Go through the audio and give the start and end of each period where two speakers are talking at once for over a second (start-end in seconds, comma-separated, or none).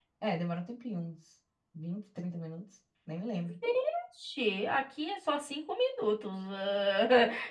none